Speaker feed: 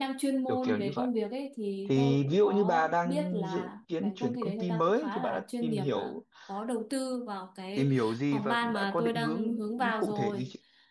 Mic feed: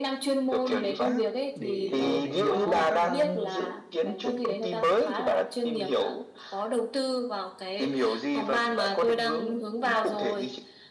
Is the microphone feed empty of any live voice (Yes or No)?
No